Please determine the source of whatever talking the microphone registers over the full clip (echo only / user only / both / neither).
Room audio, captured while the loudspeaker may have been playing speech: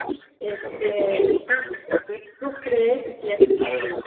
both